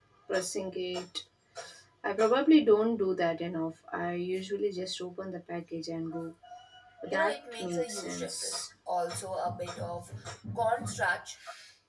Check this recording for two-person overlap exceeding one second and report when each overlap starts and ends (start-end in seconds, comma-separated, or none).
7.1-8.6